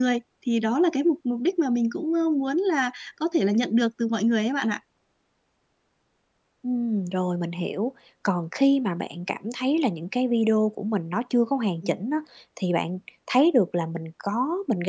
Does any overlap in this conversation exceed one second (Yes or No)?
No